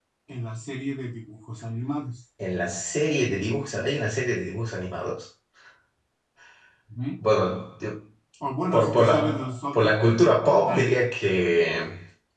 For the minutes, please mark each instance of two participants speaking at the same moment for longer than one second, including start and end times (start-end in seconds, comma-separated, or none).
8.7-10.1